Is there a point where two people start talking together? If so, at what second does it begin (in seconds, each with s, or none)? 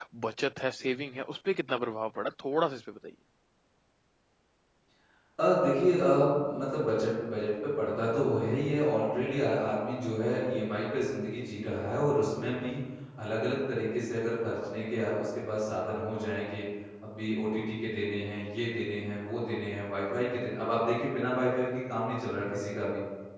none